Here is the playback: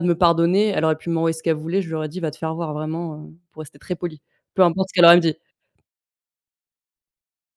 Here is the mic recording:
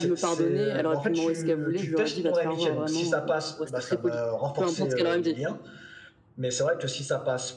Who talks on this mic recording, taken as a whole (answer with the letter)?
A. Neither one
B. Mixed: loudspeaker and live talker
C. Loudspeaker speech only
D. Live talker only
B